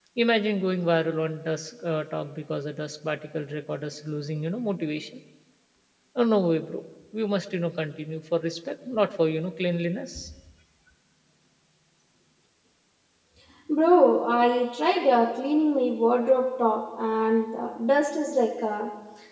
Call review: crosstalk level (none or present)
none